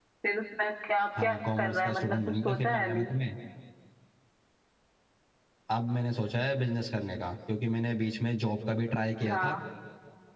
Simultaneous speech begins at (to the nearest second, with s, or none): 1 s